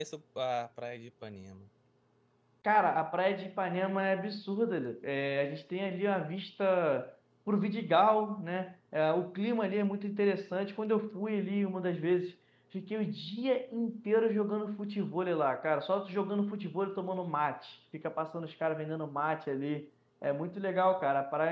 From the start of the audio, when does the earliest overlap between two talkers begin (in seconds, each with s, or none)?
none